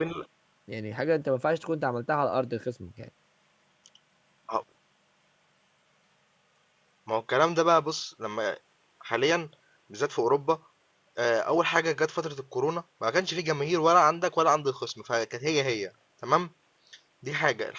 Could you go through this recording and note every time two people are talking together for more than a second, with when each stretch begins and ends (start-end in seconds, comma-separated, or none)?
none